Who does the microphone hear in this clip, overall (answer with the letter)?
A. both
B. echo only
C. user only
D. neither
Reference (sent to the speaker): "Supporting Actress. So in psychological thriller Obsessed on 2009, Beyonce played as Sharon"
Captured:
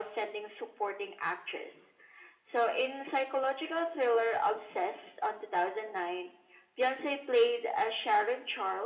B